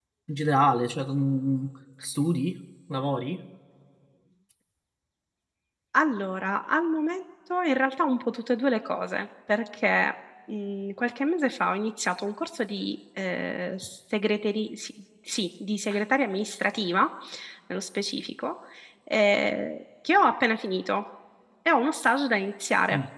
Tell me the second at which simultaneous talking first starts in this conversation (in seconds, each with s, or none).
none